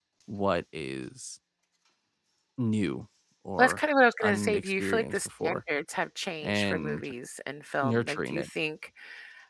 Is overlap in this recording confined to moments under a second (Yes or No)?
No